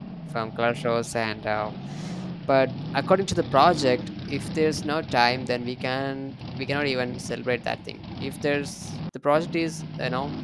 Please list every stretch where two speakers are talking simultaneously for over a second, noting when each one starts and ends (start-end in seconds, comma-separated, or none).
none